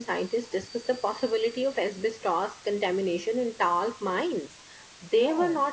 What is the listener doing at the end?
listening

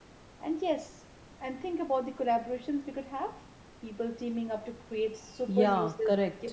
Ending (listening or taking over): taking over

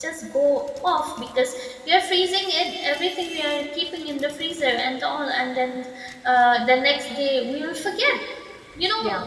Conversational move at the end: listening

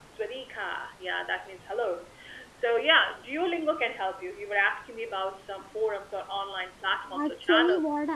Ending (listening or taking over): taking over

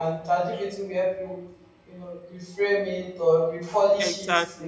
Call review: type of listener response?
listening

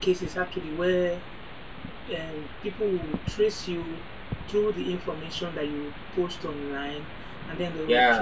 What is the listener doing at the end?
listening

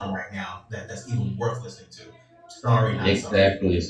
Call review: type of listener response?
taking over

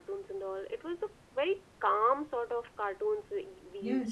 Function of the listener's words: taking over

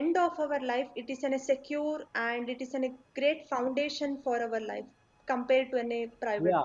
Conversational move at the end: taking over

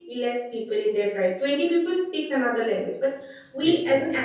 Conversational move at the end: listening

